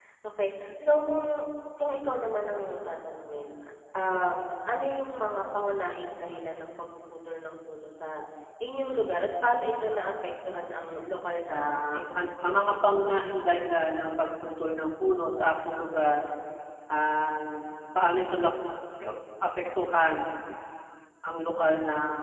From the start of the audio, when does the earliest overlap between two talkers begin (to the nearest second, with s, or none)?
11 s